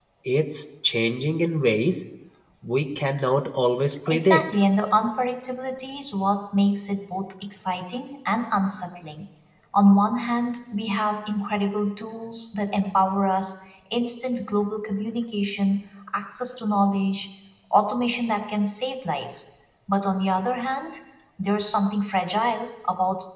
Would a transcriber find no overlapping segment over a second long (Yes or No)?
Yes